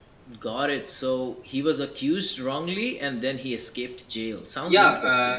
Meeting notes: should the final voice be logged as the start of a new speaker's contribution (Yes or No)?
Yes